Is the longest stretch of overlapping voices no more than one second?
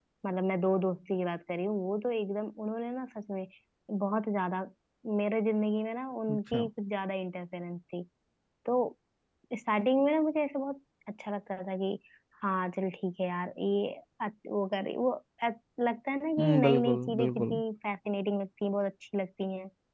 No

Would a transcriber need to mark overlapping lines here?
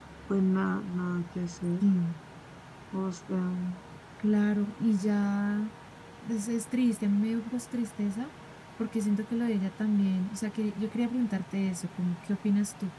No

